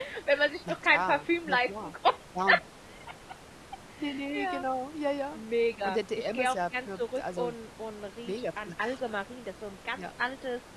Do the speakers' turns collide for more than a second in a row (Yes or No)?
Yes